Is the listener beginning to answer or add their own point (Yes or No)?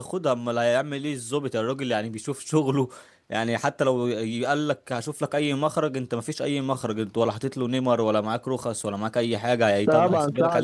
Yes